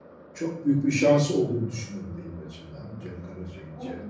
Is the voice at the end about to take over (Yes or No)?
Yes